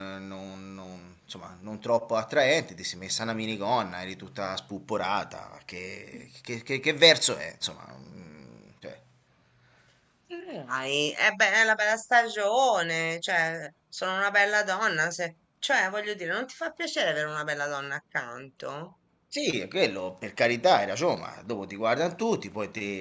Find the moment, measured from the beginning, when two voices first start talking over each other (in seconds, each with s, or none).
none